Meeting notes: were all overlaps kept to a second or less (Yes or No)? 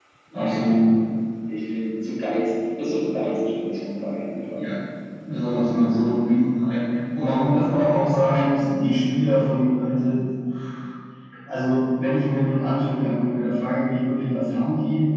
Yes